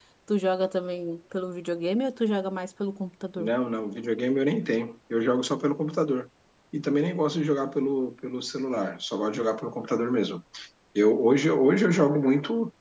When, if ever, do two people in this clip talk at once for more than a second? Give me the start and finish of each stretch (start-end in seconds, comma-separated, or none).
none